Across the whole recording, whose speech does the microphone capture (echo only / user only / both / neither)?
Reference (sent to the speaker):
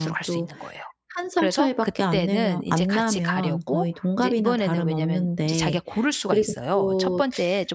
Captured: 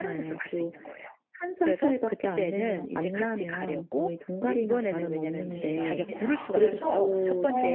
both